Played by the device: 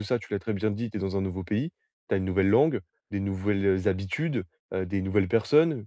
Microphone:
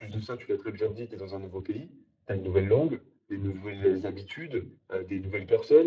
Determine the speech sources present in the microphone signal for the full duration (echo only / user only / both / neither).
echo only